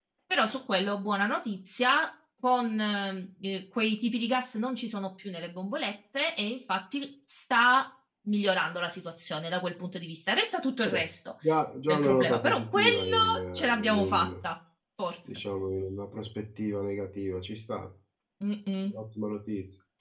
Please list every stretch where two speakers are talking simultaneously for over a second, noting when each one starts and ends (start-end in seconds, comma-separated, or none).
11.9-14.3